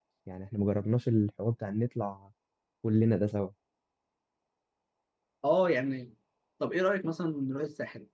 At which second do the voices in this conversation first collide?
none

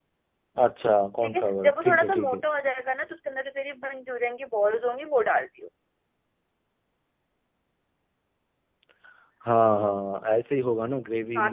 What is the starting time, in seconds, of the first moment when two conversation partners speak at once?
1 s

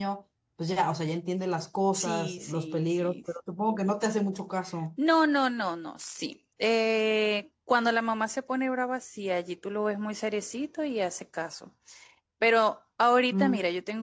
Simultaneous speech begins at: 2 s

